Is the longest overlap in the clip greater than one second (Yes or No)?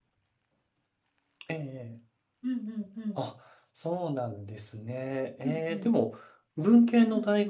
No